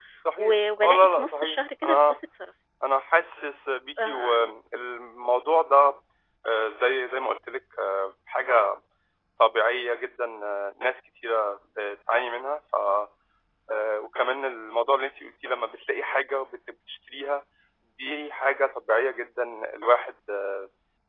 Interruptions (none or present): present